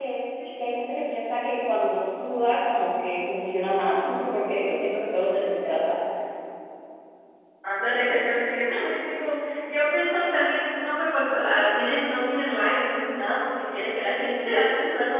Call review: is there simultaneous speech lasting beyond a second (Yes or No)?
No